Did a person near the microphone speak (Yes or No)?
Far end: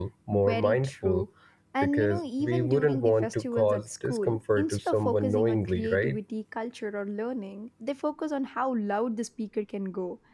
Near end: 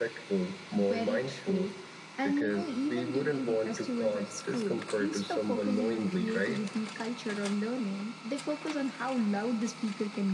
No